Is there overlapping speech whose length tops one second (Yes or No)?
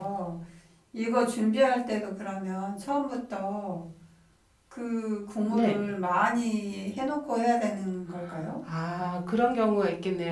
No